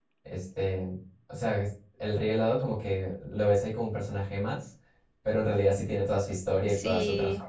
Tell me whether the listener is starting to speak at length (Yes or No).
Yes